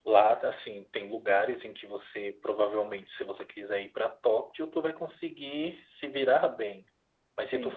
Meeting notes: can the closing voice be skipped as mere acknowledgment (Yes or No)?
Yes